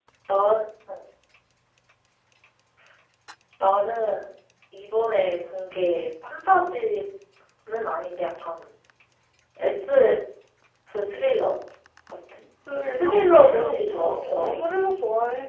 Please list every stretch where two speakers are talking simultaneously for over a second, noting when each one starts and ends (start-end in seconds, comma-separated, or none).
13.0-14.6